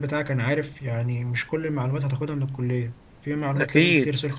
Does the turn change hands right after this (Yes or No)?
Yes